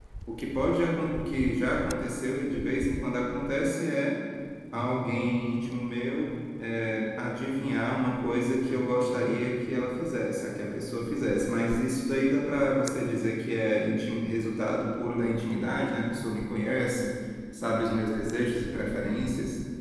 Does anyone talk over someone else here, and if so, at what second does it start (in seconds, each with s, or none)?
none